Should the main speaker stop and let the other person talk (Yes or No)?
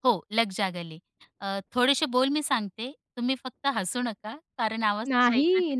Yes